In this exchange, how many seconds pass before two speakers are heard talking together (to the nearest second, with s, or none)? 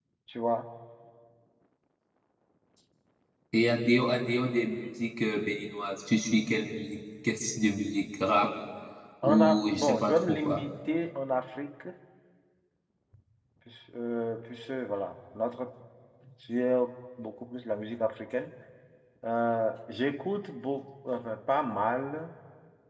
9 s